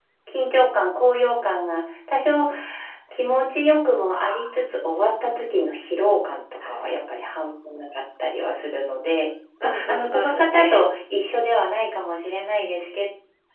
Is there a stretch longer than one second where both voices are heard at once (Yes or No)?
Yes